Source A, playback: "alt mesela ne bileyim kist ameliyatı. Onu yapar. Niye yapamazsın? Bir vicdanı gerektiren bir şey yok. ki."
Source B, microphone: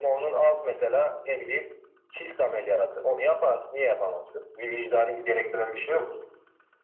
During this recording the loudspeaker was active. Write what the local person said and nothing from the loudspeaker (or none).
none